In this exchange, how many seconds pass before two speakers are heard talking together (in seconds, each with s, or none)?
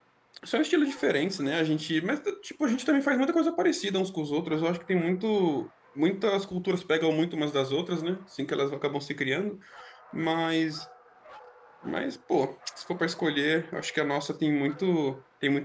none